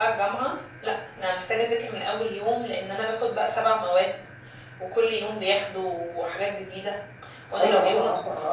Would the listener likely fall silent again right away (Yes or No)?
No